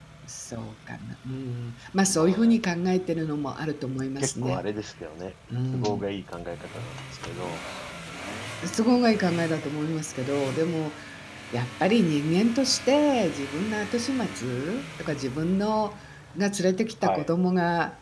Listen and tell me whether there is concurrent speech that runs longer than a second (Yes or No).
No